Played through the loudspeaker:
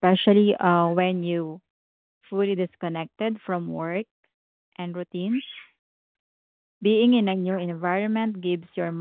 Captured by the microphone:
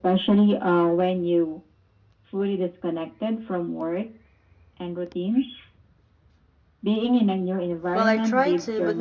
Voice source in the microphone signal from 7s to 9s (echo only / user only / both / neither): both